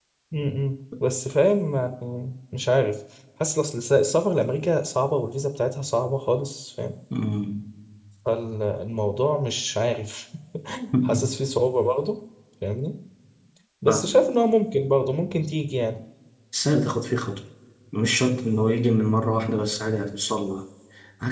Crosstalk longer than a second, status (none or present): none